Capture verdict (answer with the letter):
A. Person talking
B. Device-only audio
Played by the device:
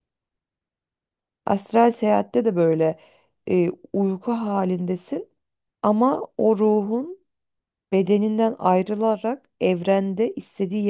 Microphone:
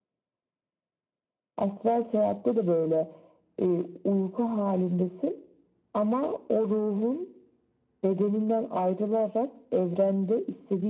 B